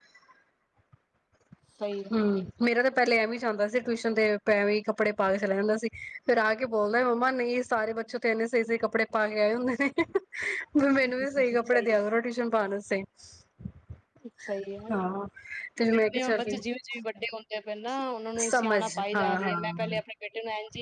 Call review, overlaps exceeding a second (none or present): present